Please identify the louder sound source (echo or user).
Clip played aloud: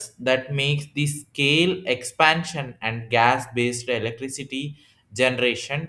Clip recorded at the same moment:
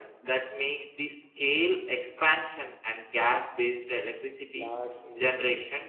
echo